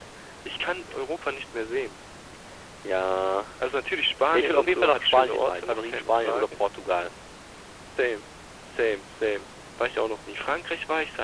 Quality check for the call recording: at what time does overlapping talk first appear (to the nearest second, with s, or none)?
4 s